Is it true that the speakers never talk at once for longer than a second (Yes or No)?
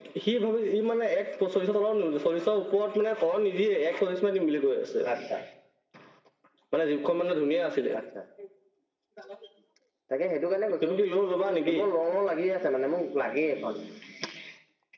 Yes